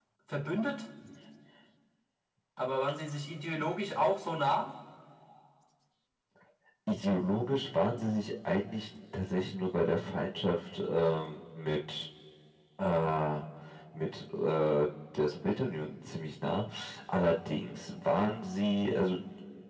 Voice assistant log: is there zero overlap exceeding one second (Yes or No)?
Yes